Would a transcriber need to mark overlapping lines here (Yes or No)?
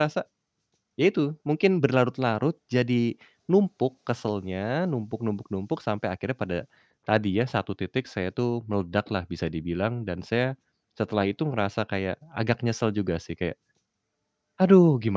No